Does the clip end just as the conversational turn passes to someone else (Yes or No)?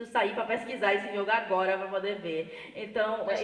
Yes